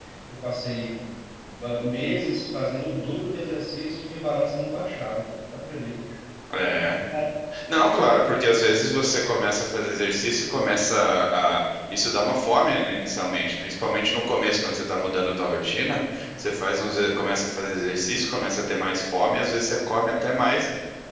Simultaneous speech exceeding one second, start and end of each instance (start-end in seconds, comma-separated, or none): none